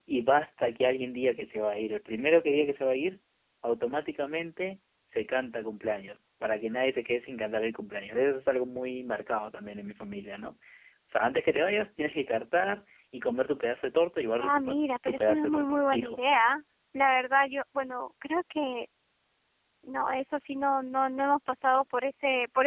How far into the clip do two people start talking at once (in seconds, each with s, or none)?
14.4 s